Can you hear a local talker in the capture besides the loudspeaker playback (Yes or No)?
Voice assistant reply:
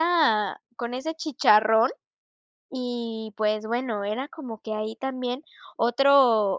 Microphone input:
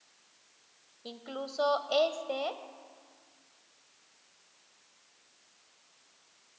Yes